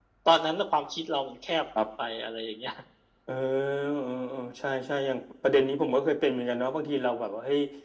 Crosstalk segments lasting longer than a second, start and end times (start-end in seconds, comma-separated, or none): none